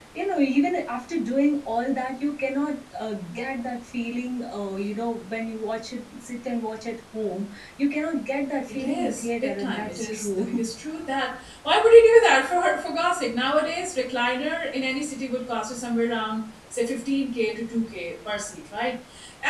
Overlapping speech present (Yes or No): Yes